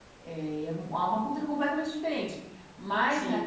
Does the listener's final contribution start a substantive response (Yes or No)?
No